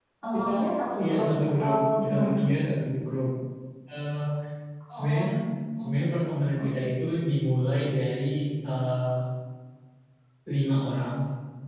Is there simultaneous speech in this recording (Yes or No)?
Yes